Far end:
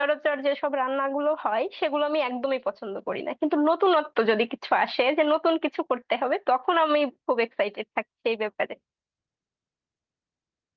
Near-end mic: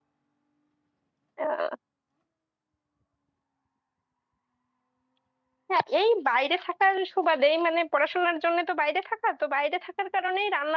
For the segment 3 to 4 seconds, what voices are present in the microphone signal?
neither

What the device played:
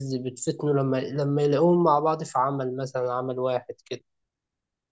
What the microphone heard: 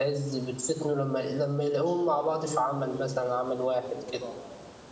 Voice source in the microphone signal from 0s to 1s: echo only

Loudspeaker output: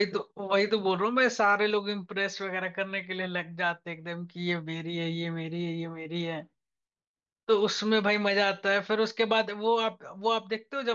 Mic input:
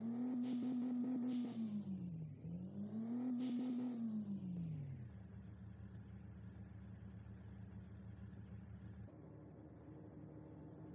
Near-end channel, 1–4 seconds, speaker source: neither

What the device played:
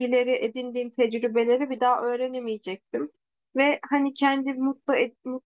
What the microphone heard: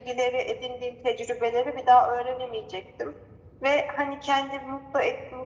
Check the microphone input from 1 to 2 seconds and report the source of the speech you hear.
echo only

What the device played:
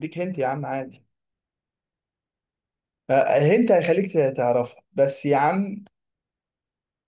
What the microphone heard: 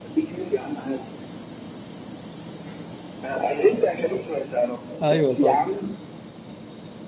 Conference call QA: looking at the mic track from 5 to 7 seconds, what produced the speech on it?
both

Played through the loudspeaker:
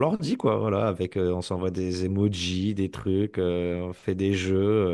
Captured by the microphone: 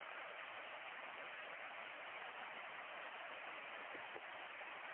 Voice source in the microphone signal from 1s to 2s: neither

